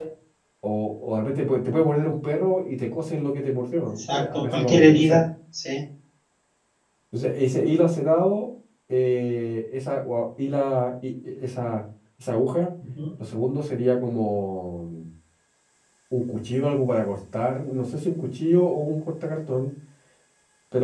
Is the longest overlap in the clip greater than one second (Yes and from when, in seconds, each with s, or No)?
Yes, from 3.9 s